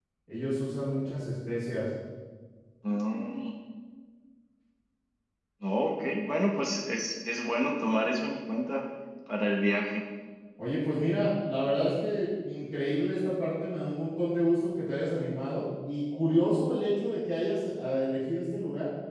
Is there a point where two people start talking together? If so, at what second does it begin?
none

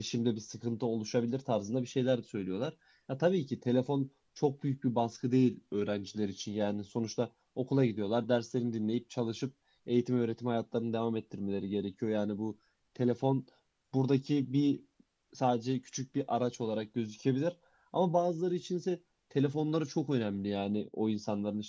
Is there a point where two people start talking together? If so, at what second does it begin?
none

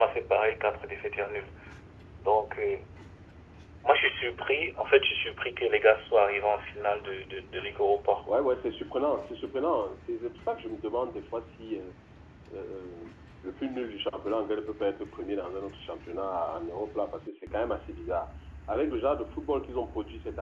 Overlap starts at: none

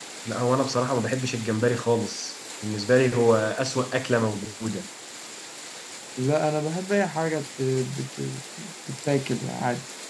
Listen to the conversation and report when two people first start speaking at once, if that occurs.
none

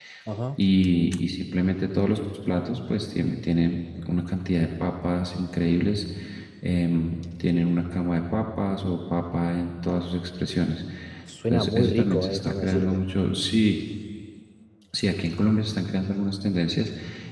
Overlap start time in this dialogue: 11.5 s

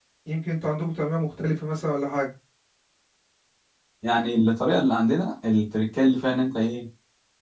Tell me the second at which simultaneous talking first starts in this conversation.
none

